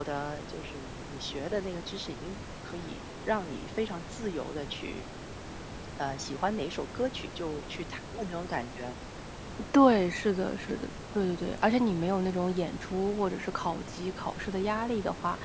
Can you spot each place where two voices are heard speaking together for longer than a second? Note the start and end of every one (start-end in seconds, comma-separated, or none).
none